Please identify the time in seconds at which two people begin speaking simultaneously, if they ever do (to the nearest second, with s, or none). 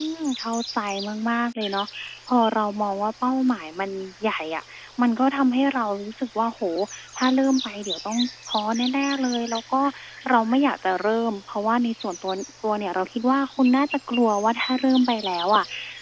none